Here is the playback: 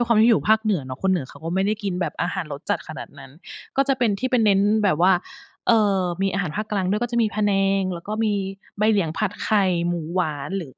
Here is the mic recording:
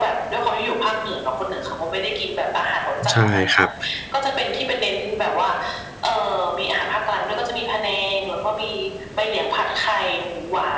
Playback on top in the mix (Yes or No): No